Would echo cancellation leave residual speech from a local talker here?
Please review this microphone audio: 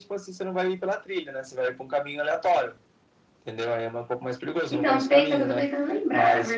Yes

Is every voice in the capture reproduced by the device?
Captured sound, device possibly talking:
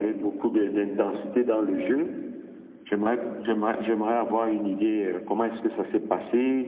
Yes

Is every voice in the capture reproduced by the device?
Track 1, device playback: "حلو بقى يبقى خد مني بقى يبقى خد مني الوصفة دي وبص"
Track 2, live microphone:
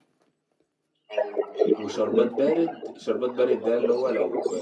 No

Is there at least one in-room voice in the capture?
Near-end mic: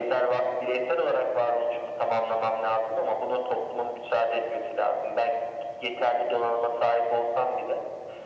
No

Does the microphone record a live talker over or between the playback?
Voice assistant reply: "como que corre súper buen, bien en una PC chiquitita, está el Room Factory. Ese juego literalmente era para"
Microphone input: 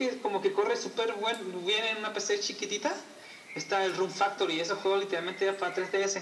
No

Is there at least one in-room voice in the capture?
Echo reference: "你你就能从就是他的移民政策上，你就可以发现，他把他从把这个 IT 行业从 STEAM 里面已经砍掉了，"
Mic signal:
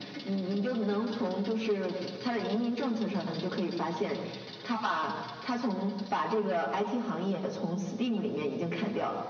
No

